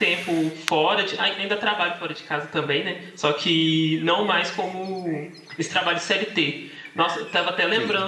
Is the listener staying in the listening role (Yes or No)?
Yes